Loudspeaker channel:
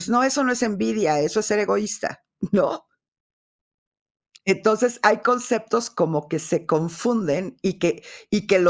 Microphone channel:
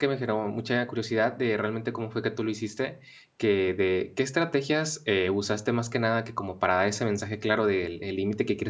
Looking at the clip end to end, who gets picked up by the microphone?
user only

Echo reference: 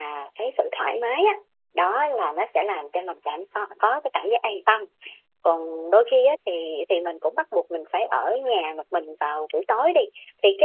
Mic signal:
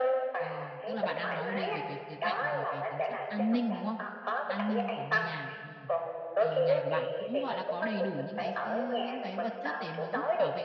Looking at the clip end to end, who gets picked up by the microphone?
both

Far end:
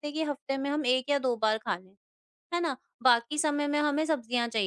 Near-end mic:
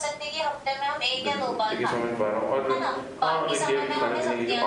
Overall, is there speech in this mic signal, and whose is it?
both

